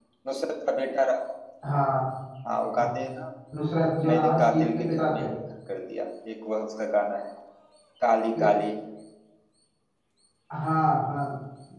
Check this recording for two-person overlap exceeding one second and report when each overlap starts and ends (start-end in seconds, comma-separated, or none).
4.0-5.3